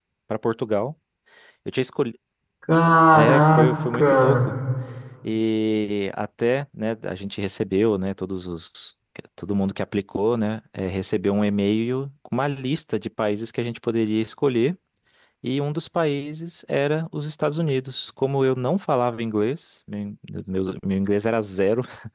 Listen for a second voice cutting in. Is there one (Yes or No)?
Yes